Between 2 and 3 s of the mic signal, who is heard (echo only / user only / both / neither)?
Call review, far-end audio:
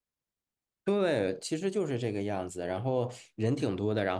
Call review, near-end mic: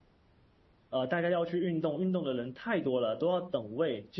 user only